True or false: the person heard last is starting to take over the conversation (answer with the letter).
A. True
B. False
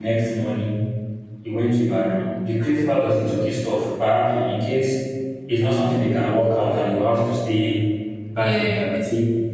B